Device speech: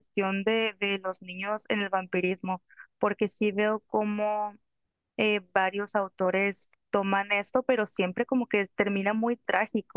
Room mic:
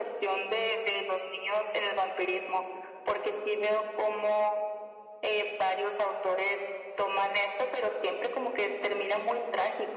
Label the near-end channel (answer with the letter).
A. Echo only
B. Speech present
A